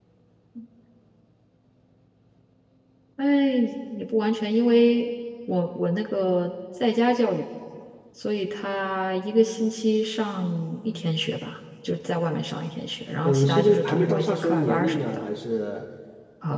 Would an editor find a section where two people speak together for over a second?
Yes, from 13.2 s

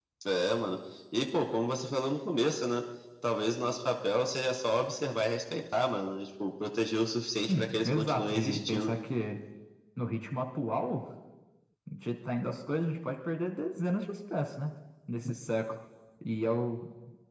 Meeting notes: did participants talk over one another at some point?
Yes, from 7.5 s

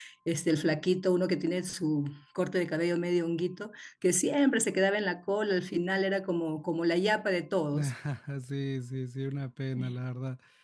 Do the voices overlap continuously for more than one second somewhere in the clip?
No

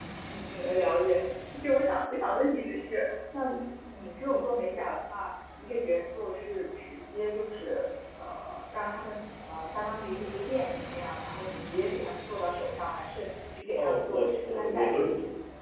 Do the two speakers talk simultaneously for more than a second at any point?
Yes, from 13.7 s

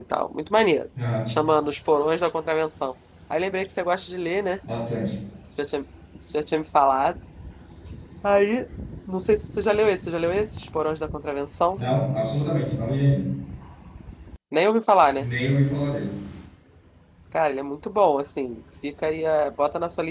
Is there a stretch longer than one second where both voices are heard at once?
No

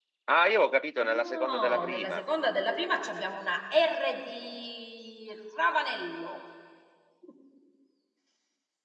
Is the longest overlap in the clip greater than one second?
Yes, from 1.0 s

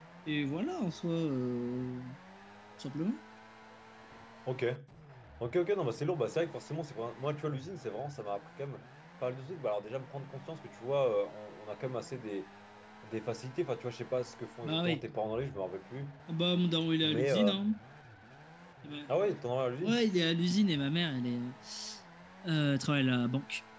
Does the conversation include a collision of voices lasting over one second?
No

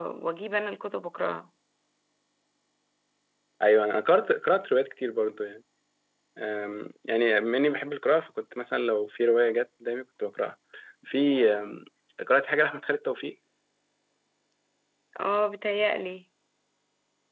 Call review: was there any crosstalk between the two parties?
No

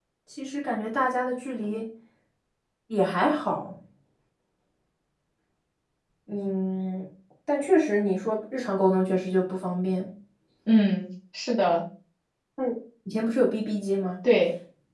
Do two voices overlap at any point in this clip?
No

